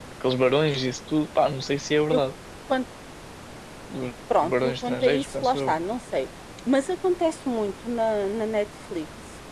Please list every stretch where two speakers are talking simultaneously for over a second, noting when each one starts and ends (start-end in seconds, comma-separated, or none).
4.4-5.8